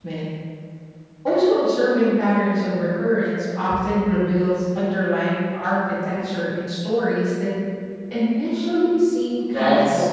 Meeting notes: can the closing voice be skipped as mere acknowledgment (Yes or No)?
No